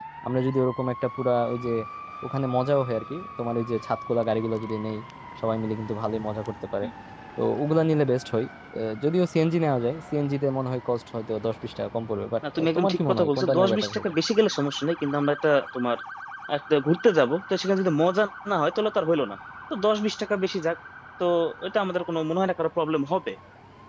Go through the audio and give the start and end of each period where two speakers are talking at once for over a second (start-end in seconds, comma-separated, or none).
12.6-14.1